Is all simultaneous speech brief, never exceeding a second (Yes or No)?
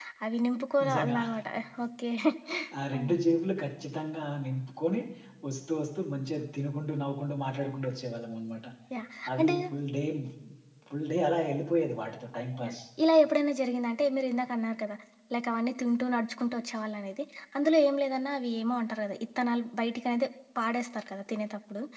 Yes